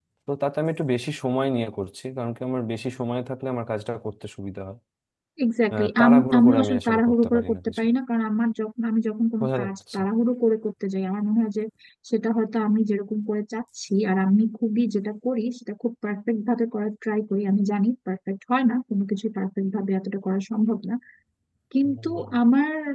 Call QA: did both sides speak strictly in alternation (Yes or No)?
No